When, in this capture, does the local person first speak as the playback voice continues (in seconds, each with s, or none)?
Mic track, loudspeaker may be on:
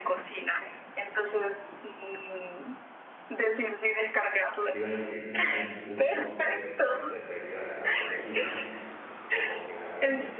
4.7 s